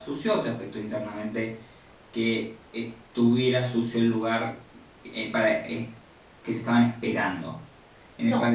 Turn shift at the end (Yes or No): Yes